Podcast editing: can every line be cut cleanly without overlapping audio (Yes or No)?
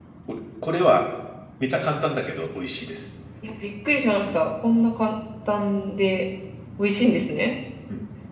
Yes